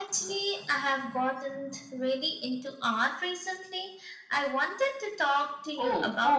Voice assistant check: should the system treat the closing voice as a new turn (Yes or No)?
Yes